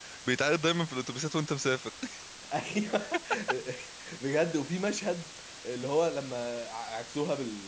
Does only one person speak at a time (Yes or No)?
Yes